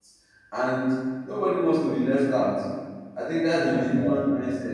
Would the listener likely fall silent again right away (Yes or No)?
Yes